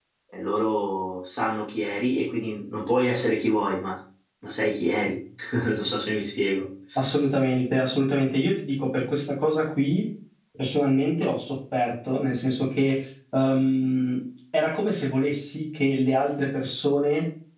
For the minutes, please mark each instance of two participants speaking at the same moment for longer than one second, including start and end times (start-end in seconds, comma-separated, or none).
none